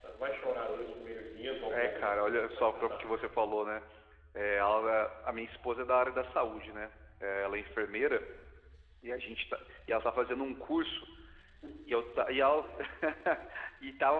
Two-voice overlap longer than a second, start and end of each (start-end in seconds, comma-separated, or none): 1.7-3.1